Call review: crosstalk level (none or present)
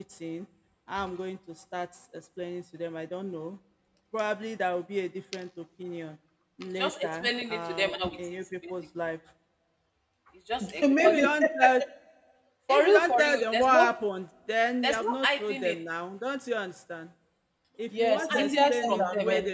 present